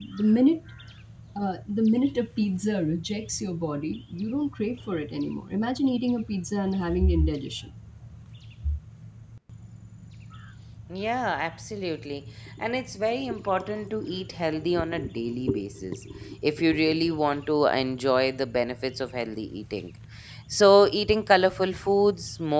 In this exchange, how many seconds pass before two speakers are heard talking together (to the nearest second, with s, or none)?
none